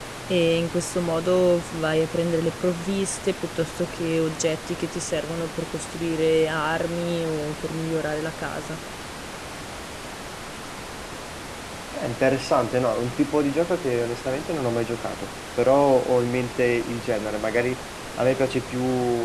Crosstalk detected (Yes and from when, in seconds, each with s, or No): No